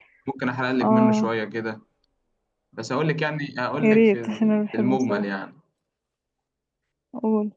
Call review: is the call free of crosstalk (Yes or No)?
No